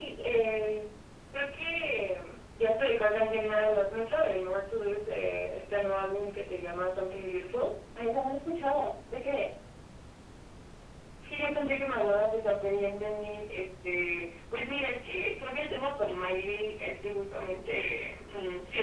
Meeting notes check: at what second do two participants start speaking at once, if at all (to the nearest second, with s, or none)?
none